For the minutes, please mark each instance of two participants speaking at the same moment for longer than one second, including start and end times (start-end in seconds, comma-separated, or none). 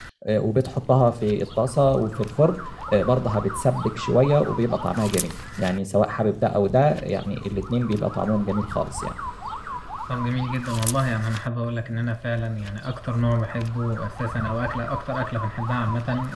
none